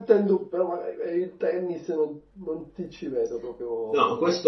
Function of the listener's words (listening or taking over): taking over